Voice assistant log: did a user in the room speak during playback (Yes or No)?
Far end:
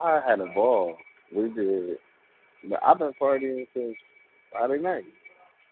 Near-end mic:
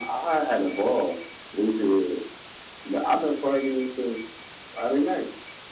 No